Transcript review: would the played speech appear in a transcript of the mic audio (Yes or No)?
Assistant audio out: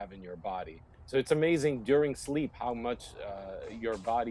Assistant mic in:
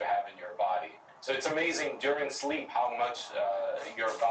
Yes